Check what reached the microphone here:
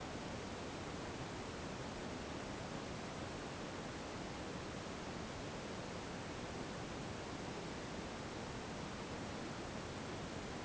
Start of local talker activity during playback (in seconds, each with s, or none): none